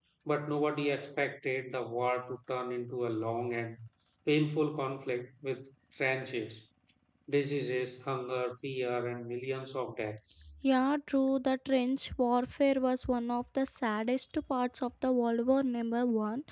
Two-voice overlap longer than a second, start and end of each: none

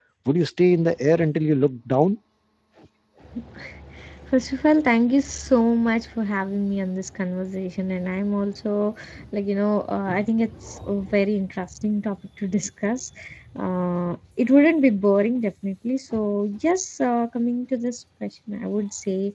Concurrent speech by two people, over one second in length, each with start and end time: none

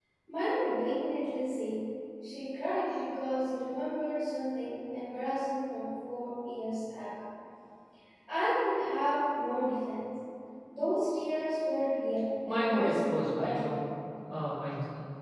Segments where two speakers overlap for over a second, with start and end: 12.5-13.8

